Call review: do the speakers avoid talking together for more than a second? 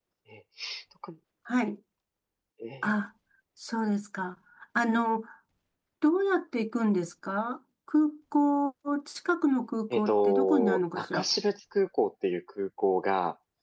No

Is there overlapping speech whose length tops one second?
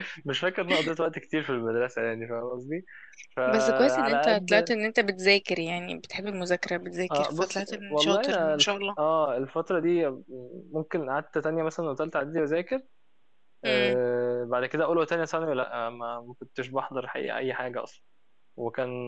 Yes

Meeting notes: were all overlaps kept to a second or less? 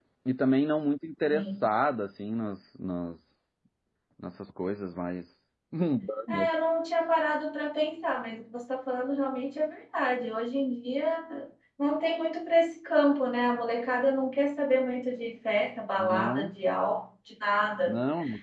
Yes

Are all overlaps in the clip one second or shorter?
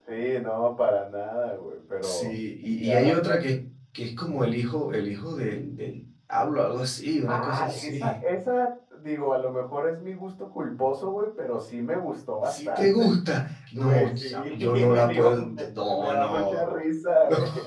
No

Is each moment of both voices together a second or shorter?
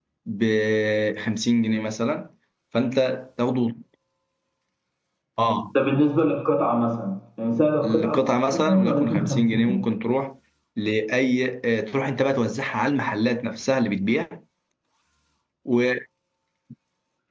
No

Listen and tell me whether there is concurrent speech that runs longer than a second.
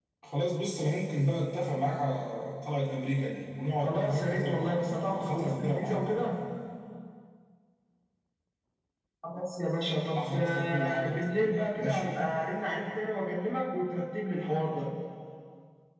Yes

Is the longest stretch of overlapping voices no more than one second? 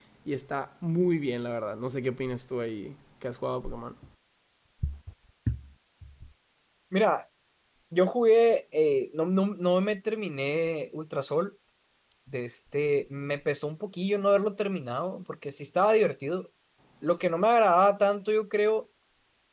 Yes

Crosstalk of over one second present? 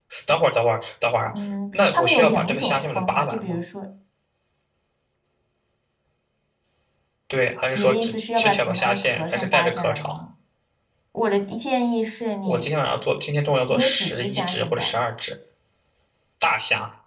Yes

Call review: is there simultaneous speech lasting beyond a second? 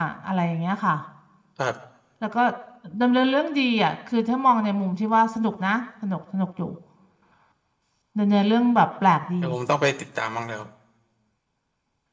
No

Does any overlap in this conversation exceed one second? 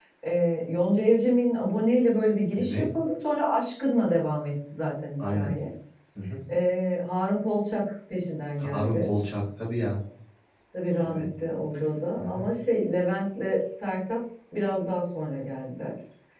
No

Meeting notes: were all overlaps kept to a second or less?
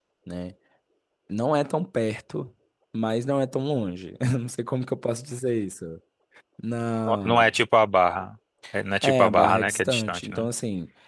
No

